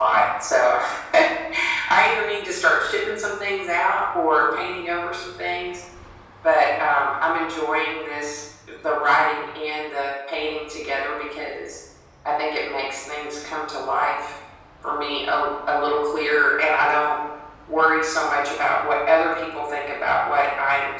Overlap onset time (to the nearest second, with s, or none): none